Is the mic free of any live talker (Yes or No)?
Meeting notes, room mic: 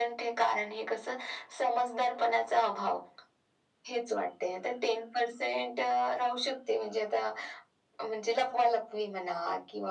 Yes